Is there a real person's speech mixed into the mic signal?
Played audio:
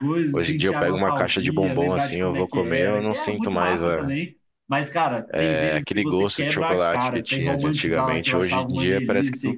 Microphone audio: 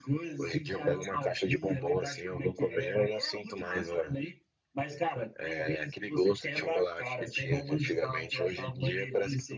No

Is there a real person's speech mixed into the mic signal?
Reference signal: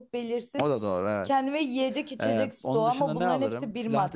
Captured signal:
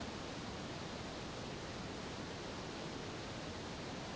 No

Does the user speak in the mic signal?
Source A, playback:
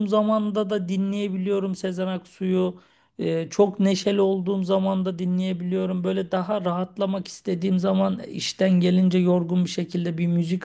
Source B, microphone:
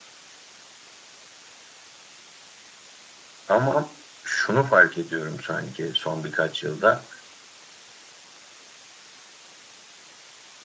Yes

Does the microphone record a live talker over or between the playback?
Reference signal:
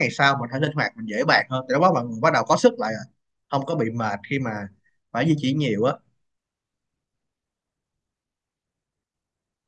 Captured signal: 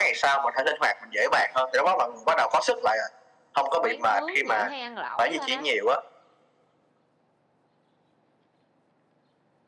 Yes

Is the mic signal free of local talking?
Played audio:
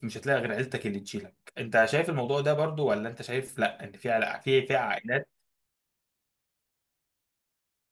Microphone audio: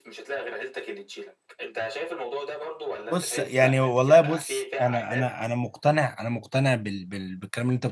No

